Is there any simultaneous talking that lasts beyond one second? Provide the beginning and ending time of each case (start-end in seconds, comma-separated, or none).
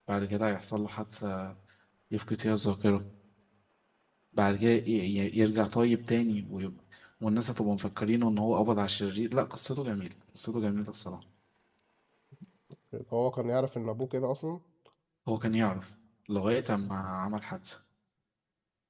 none